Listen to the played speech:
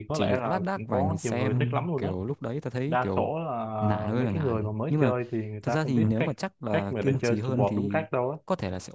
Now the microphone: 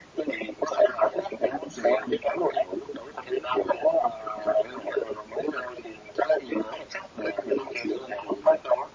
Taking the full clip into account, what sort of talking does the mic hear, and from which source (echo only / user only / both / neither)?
echo only